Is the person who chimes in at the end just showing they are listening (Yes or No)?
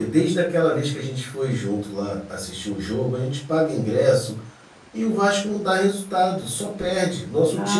No